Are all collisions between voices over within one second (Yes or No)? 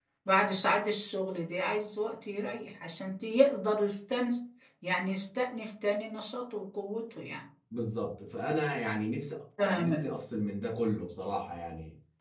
Yes